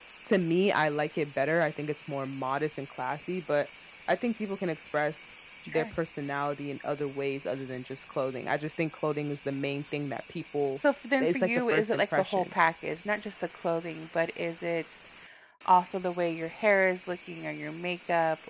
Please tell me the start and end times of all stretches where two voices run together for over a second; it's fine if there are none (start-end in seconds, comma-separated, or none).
11.2-12.5